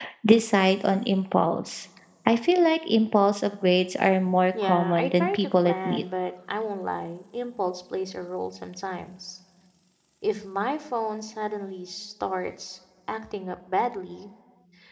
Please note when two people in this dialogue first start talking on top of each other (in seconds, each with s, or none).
4.5 s